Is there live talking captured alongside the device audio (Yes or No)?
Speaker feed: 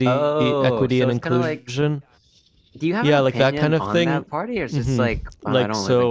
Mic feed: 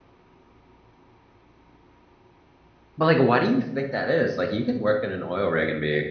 Yes